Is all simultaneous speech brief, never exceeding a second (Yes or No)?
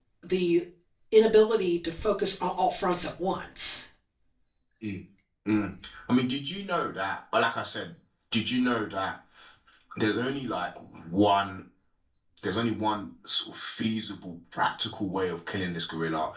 Yes